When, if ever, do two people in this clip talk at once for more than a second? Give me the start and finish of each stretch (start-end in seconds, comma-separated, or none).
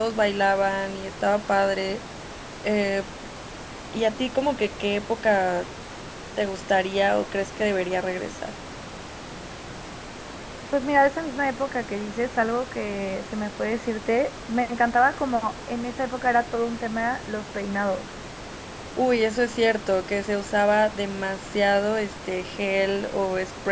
none